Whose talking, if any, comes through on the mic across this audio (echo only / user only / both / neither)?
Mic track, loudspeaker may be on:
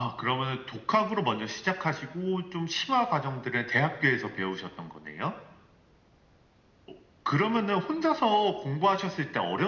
echo only